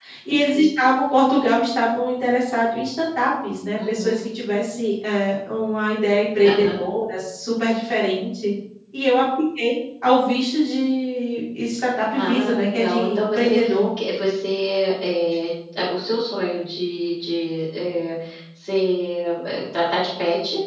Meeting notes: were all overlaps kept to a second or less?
No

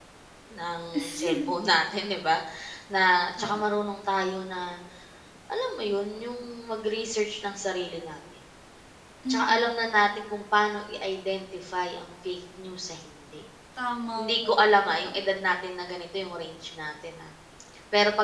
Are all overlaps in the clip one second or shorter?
No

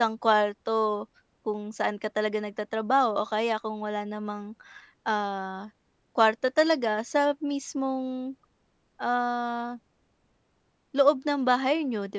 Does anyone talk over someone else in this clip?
No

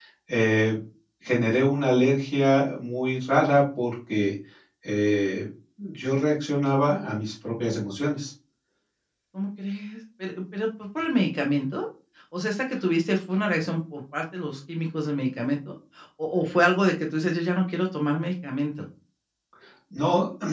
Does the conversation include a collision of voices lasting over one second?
No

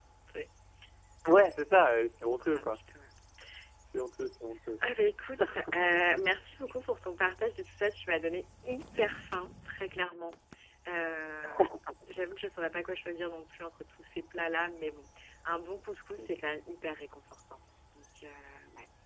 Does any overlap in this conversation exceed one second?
No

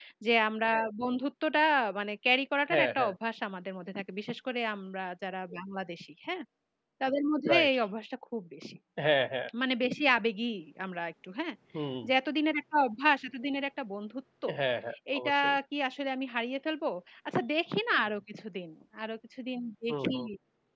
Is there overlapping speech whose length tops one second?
No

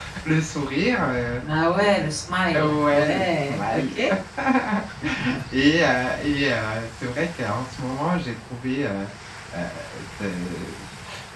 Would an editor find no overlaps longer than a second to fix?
No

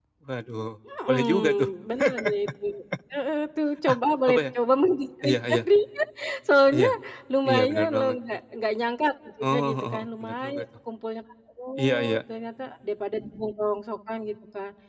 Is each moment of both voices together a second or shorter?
No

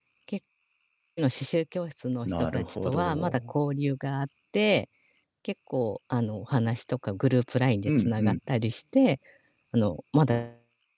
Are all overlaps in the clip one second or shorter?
No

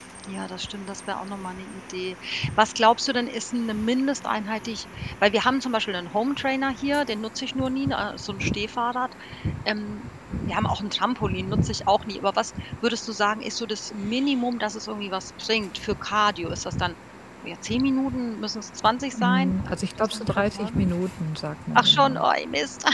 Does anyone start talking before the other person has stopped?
Yes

